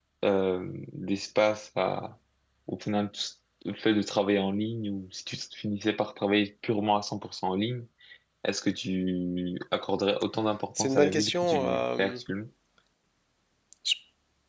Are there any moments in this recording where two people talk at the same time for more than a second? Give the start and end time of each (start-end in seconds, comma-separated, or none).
10.8-12.2